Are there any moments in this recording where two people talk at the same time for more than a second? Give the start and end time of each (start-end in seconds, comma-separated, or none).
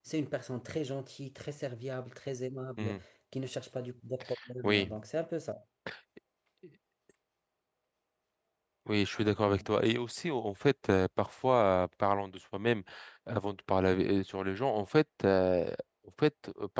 none